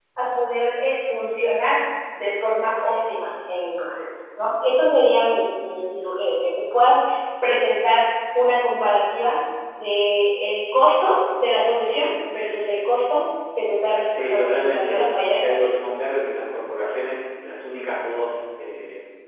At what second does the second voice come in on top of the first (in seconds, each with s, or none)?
14.1 s